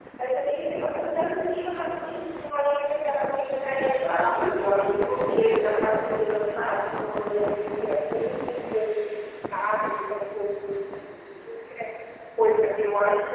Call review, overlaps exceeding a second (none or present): present